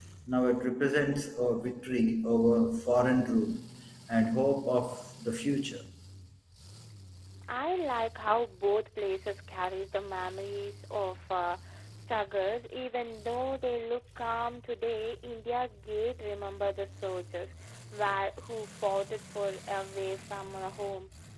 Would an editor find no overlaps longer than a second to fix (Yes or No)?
Yes